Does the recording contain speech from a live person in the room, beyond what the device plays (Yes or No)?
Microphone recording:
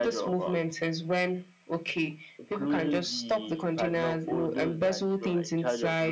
No